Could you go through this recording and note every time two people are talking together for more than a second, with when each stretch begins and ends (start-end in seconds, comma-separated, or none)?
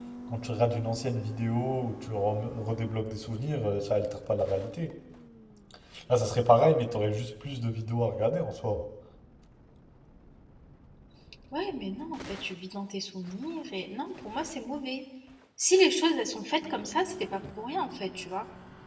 none